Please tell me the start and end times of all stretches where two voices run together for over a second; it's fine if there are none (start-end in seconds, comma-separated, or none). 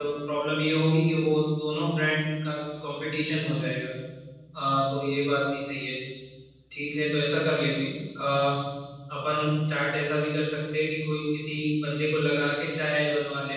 none